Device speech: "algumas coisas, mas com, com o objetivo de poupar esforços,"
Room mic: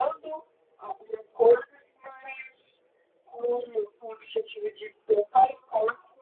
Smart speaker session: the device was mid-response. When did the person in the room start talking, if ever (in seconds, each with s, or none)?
none